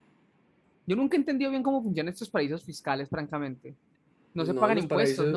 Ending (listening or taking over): taking over